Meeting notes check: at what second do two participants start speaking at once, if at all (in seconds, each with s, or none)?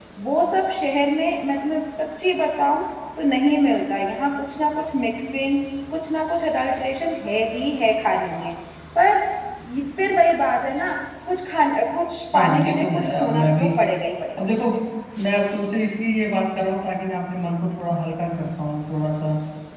12.3 s